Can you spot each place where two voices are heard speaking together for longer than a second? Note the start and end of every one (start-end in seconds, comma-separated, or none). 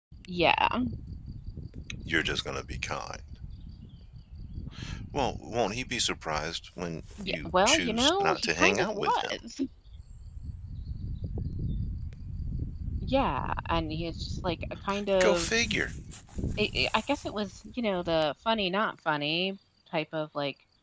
7.3-9.3